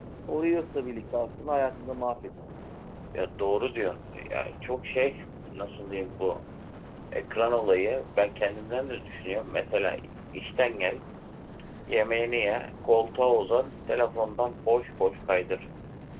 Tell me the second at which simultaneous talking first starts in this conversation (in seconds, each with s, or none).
none